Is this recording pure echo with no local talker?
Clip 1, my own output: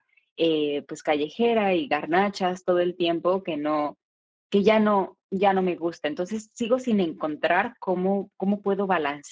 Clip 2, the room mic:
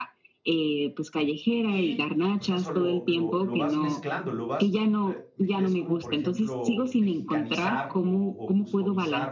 No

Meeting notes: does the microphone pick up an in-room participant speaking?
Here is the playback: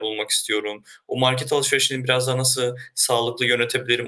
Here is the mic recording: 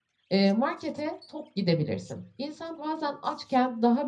Yes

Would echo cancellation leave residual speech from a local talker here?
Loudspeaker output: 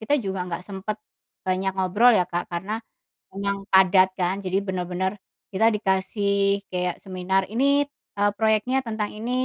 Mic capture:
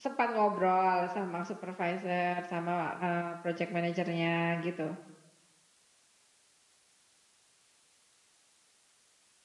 Yes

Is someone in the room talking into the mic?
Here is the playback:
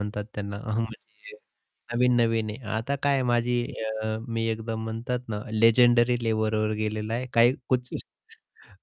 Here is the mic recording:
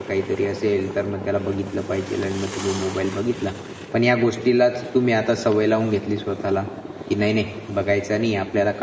Yes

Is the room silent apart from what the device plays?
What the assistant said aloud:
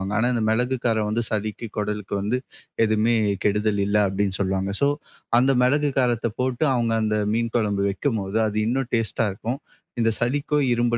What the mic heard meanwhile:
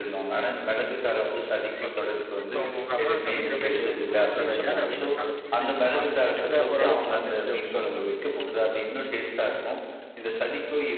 No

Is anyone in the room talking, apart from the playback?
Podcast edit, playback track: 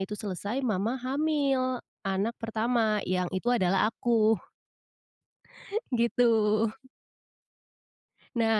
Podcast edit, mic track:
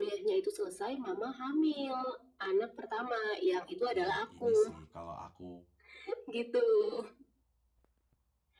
Yes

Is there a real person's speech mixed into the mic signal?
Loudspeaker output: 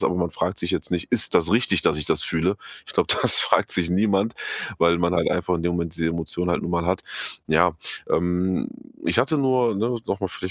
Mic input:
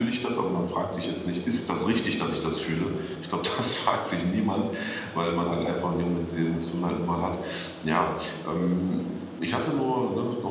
No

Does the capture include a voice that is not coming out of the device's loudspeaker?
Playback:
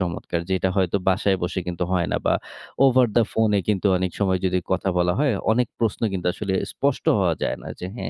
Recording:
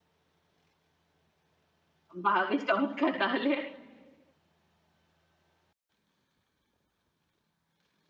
Yes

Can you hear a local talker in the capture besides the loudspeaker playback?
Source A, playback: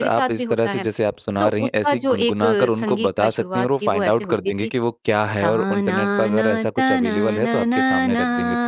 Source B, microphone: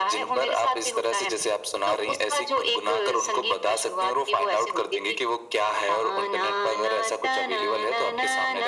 No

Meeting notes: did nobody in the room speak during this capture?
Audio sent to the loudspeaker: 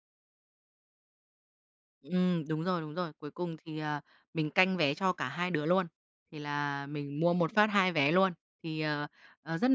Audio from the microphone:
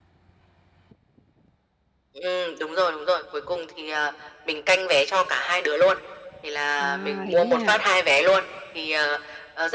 No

